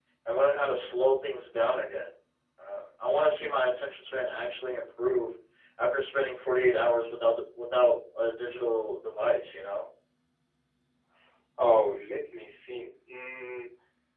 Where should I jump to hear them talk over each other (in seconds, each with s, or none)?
none